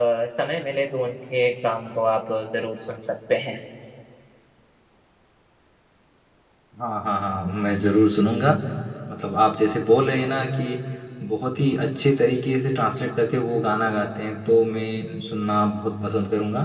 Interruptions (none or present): none